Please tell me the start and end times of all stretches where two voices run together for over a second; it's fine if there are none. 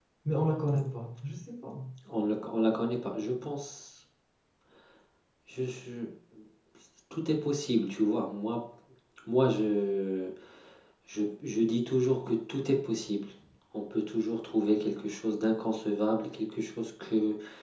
none

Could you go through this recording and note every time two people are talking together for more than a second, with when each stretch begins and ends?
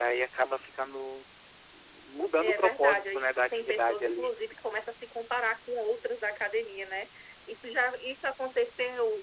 2.4-4.3

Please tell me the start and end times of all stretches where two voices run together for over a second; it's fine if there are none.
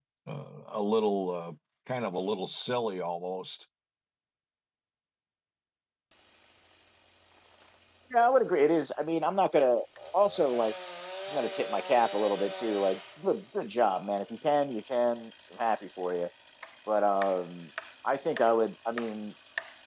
none

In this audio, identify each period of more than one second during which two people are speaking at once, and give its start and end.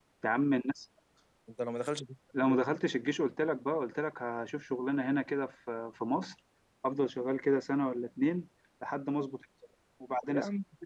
none

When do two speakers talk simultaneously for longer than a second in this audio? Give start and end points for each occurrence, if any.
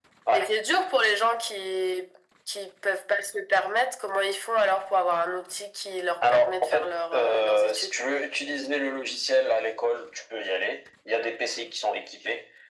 6.3-7.9

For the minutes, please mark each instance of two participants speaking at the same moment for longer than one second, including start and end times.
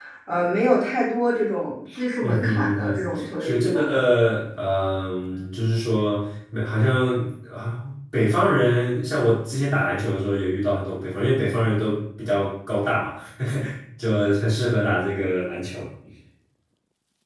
2.2-3.9

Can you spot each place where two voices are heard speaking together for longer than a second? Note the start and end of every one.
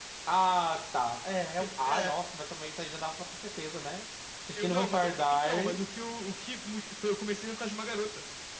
4.6-5.8

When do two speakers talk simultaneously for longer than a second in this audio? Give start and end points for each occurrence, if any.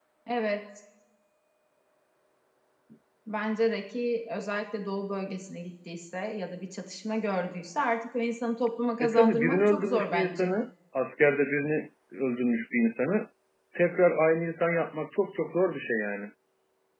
9.0-10.5

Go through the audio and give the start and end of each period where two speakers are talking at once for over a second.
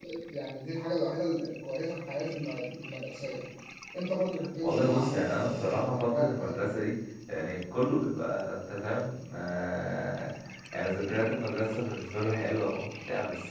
4.6-6.6

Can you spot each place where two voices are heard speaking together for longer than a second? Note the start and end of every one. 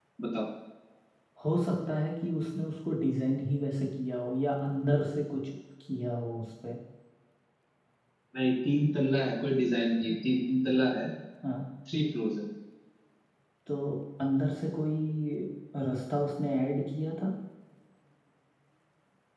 none

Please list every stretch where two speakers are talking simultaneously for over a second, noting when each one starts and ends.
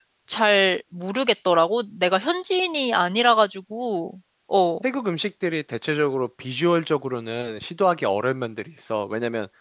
none

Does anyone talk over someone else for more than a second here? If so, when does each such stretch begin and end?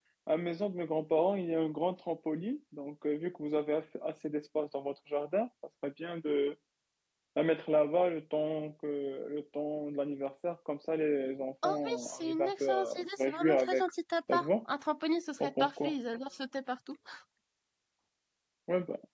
11.6-13.8

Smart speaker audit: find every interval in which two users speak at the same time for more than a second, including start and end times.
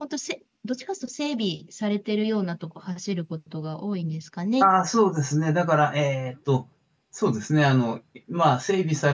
none

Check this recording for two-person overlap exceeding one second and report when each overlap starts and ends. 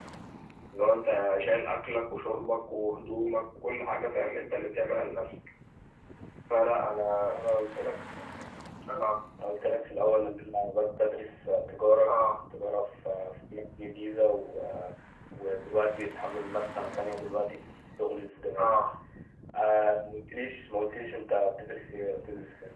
none

